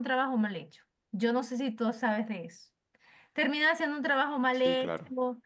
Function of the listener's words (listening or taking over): listening